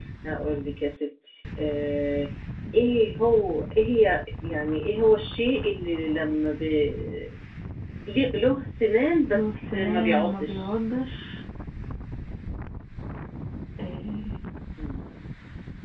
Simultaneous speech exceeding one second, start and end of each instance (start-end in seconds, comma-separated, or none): 9.4-10.7